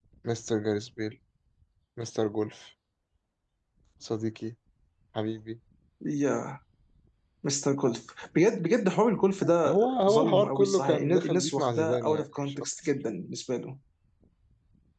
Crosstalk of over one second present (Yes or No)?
Yes